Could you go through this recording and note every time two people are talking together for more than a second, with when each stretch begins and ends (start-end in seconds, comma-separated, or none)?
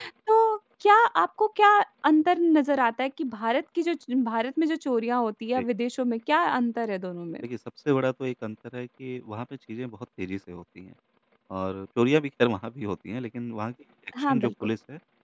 none